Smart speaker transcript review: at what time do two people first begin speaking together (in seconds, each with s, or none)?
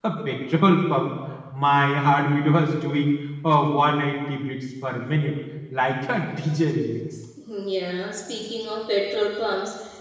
none